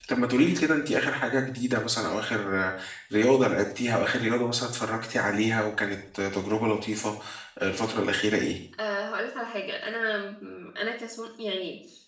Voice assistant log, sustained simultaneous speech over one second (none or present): none